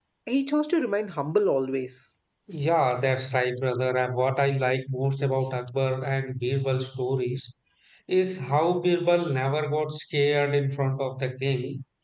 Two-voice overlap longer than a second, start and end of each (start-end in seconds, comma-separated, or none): none